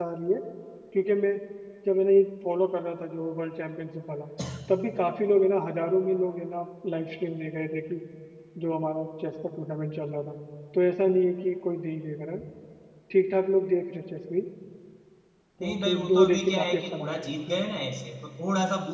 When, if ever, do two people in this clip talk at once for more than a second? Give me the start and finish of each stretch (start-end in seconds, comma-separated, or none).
15.6-17.6